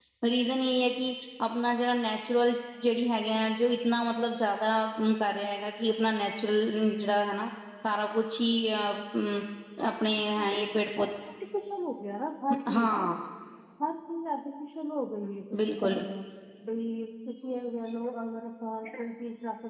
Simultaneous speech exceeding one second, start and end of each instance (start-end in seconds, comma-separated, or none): none